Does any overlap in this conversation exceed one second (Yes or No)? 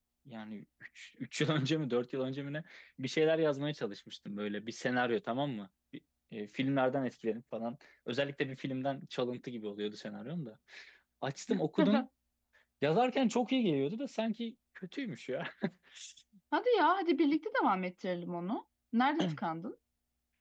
No